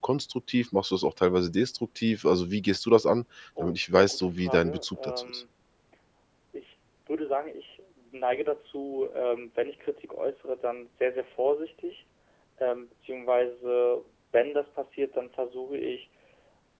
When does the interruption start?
3.6 s

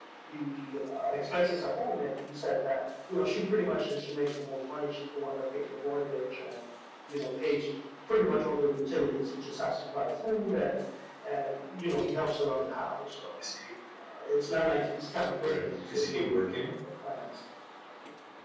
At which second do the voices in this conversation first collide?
15.4 s

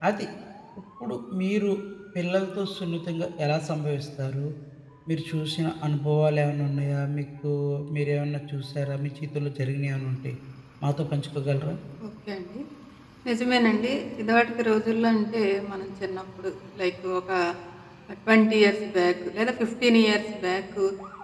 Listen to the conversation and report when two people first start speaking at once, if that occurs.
none

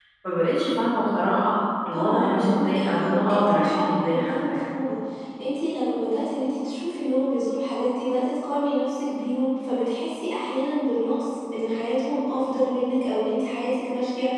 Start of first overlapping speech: 1.9 s

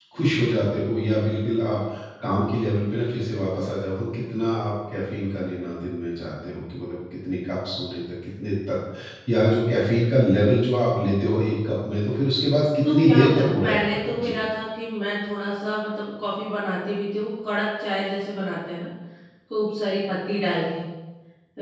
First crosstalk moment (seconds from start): 12.8 s

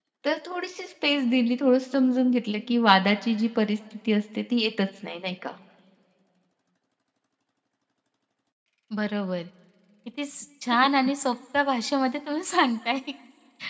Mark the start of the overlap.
none

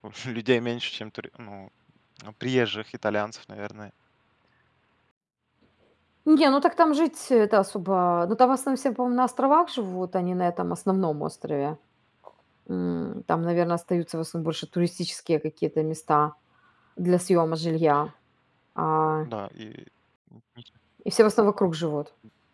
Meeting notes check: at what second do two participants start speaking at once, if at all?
none

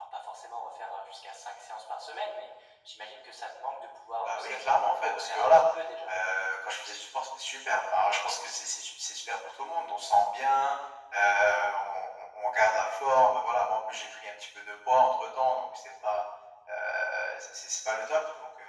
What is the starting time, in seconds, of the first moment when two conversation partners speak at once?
4.2 s

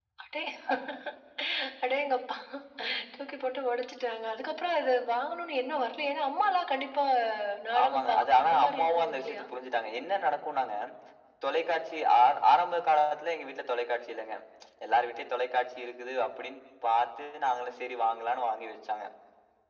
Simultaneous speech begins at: 7.8 s

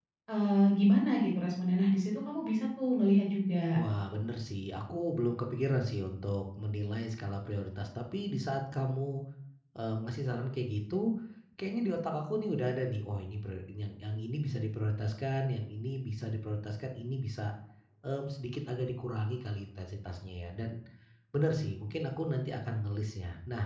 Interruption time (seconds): none

